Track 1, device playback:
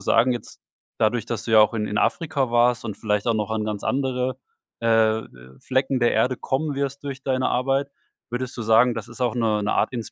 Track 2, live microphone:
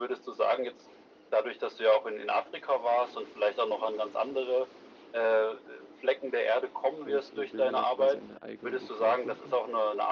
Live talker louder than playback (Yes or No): No